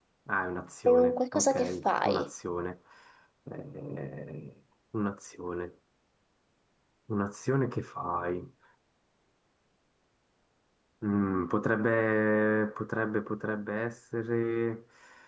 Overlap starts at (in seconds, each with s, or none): 0.9 s